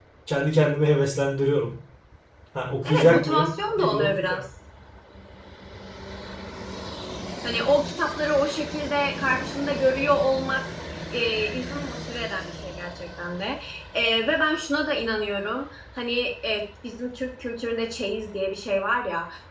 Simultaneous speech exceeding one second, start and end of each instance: 2.8-4.4

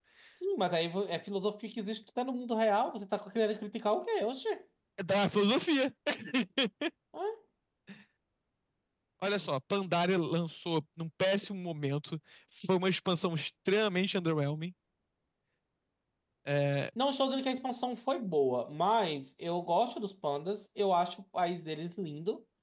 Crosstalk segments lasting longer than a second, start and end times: none

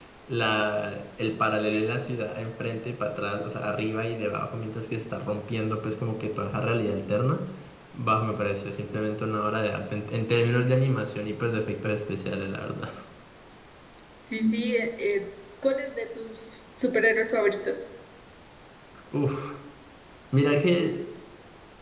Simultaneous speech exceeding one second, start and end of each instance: none

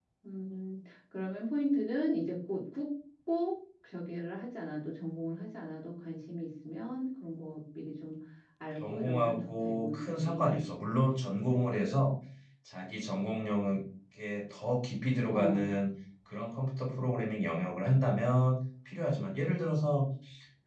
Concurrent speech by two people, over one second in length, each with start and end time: 8.8-10.6

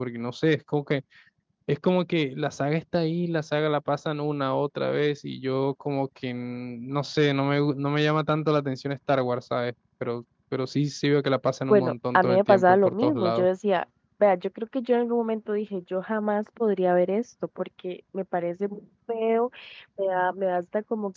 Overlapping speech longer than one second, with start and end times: 11.7-13.5

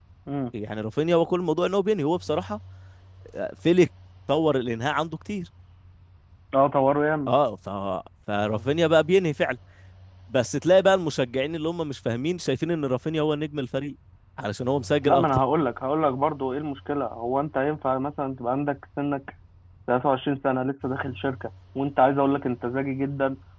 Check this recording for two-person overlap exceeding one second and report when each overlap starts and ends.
none

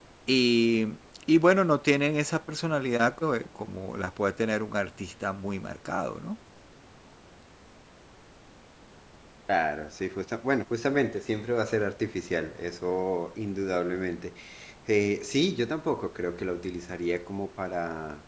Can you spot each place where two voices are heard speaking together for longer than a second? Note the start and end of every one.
none

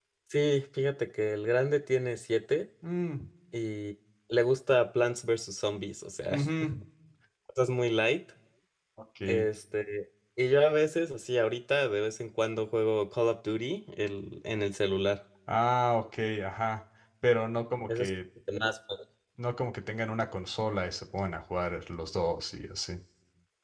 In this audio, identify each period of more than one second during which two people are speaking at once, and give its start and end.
none

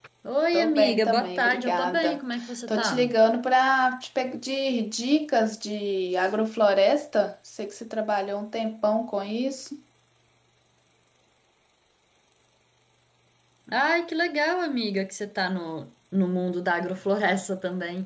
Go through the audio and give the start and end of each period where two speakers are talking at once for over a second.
0.5-2.2

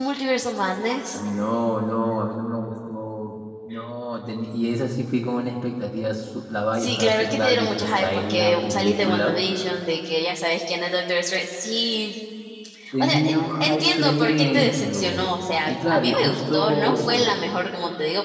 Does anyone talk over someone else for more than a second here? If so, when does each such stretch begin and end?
6.8-9.4, 13.0-15.2, 15.7-17.3

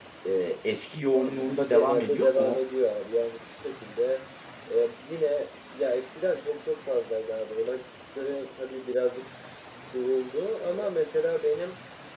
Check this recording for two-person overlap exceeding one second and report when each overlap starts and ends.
1.1-2.6

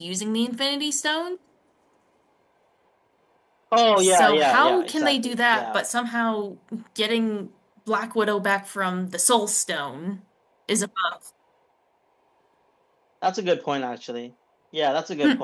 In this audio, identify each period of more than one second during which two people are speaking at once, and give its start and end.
4.0-5.8

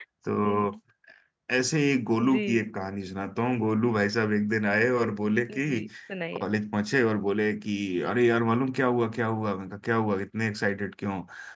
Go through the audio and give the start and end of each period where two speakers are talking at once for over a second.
none

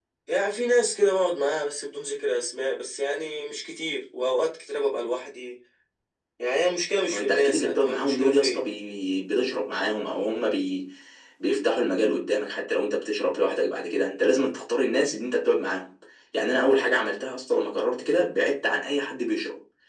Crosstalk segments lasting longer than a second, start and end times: 7.1-8.6

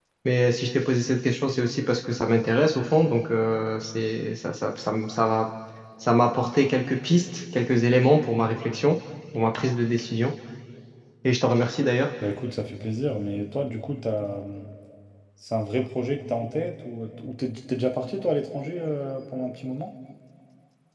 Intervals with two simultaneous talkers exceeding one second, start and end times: none

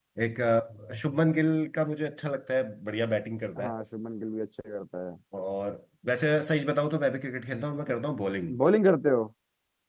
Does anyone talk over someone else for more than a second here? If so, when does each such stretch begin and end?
none

